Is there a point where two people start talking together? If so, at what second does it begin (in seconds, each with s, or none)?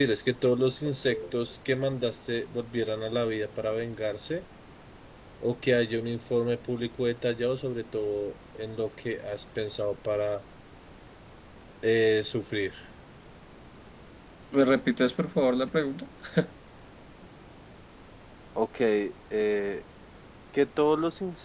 none